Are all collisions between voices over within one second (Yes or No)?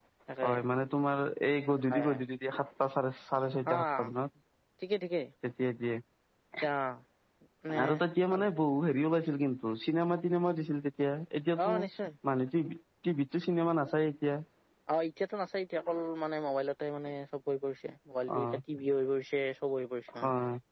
Yes